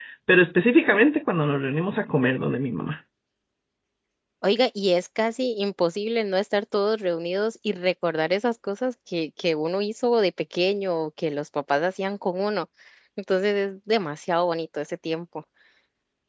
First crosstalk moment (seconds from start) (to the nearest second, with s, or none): none